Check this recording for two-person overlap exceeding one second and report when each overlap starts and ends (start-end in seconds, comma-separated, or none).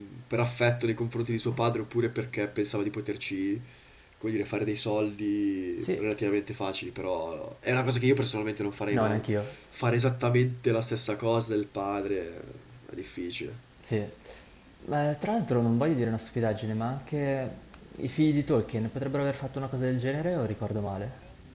none